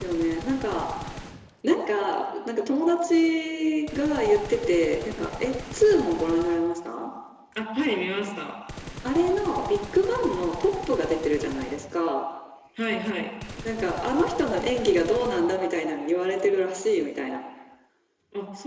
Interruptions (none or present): none